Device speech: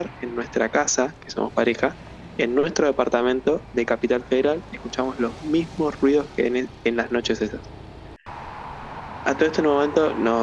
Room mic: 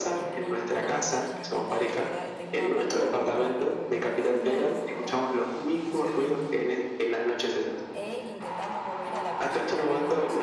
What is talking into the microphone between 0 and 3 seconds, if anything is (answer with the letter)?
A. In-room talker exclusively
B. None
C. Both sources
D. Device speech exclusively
C